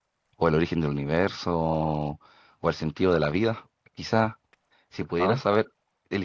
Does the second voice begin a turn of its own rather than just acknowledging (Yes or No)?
No